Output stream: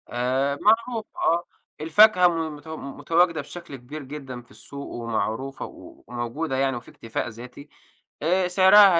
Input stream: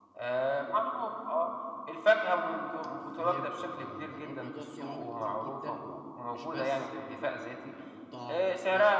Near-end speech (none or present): present